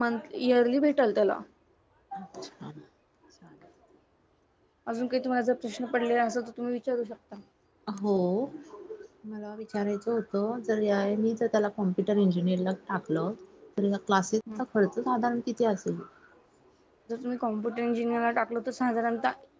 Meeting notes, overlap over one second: none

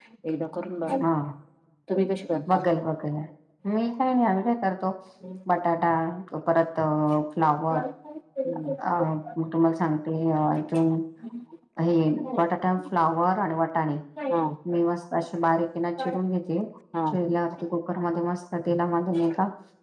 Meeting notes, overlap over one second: none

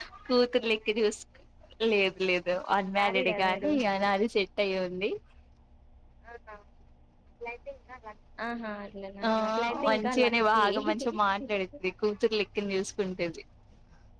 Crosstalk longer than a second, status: present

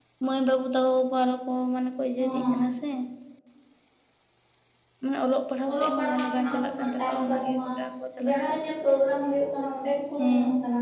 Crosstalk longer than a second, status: present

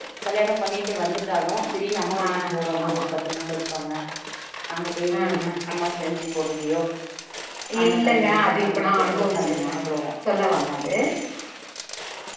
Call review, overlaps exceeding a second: present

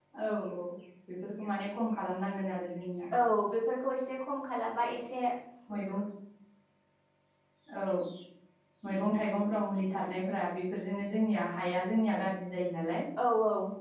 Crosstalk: none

